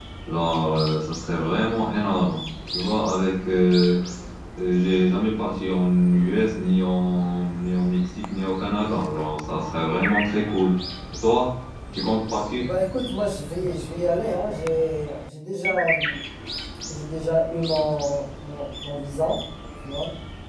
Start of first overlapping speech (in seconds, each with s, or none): none